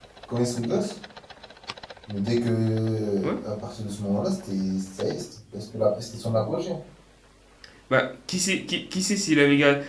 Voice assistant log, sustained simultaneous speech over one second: none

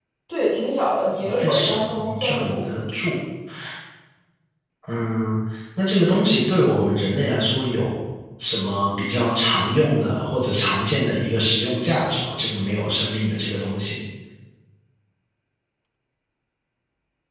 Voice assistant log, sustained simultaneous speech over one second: present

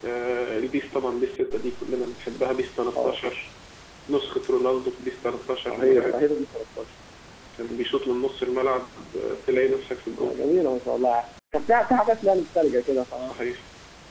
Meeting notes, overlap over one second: none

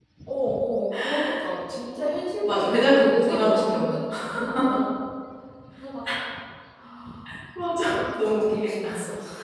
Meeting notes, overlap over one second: present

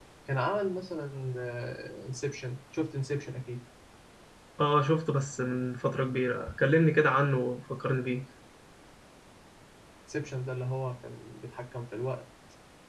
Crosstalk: none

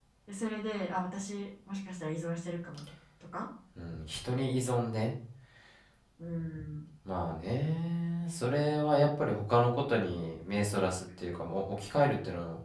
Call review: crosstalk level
none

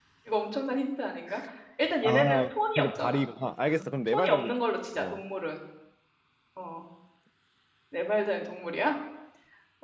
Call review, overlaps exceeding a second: present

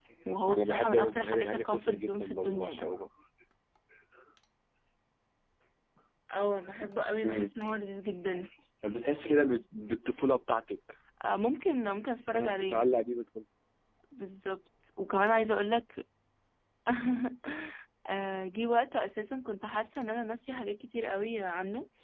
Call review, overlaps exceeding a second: present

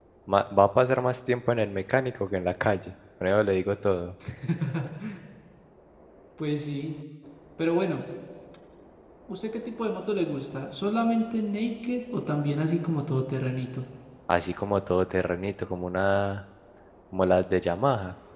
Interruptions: none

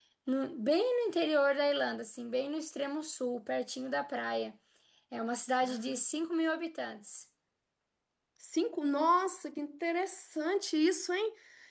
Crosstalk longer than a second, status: none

